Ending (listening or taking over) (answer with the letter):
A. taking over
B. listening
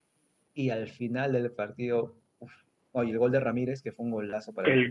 A